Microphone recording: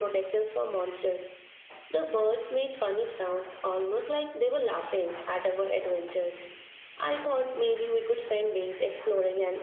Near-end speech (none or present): none